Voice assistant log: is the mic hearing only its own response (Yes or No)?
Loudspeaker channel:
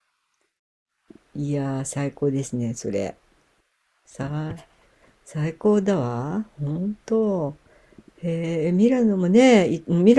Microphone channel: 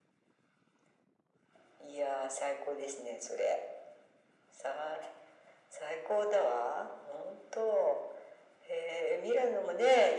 Yes